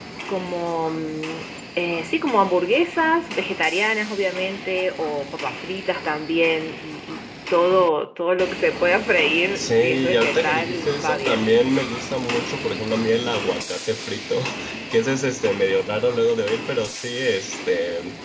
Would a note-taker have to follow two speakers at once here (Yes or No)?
Yes